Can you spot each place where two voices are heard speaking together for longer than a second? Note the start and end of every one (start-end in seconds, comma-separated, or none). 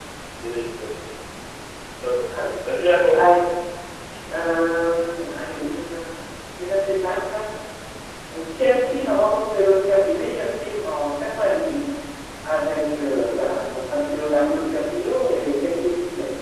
none